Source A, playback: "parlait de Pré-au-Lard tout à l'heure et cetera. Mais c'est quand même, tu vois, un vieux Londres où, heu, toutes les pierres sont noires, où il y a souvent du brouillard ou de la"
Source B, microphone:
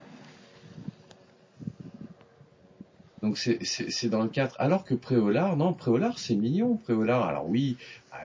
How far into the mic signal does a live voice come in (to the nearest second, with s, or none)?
3 s